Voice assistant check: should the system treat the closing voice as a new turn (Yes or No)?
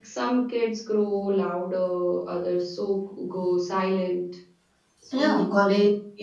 Yes